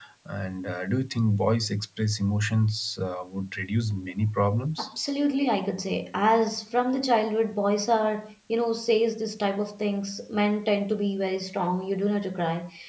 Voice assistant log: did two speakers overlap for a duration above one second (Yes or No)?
No